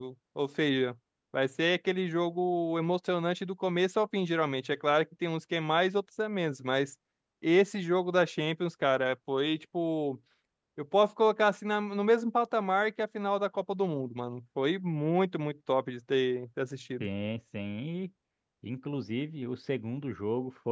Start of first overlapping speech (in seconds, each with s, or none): none